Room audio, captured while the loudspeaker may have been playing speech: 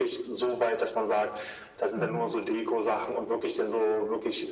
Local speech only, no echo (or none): Mhm.